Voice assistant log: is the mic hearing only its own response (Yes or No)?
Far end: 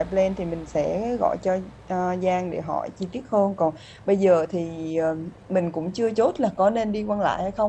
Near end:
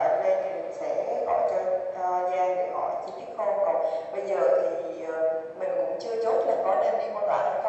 Yes